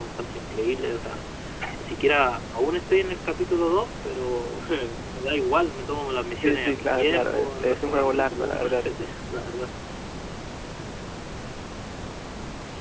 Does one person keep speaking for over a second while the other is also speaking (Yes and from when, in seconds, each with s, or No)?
Yes, from 6.4 s